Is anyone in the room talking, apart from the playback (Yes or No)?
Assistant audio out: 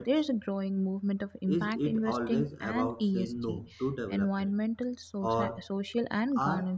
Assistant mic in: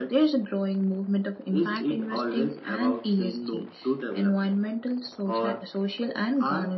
No